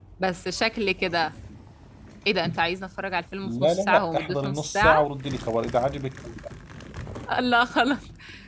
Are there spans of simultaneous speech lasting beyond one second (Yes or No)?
Yes